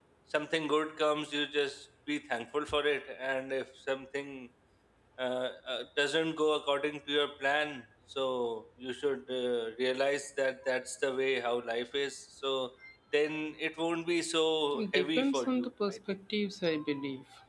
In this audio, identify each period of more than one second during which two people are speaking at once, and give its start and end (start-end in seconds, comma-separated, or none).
14.7-16.2